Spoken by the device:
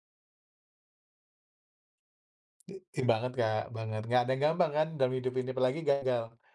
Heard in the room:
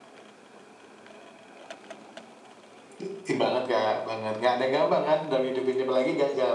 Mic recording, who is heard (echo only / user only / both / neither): echo only